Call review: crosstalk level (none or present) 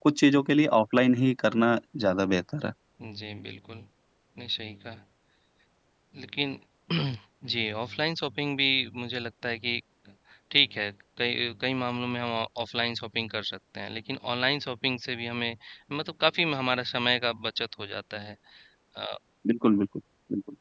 none